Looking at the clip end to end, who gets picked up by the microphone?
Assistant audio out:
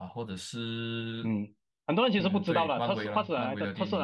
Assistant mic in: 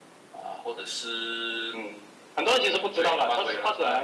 echo only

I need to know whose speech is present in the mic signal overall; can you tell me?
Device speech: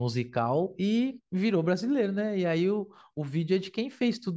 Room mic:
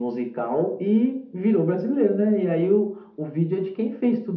echo only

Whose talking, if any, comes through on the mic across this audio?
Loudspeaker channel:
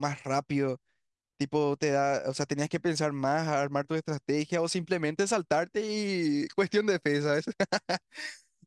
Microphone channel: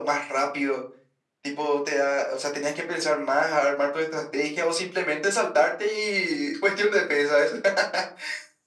echo only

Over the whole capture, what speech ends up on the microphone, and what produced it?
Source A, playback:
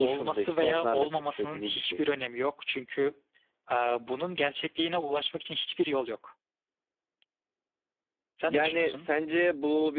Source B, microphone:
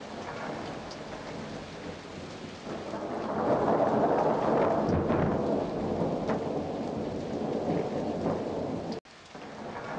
neither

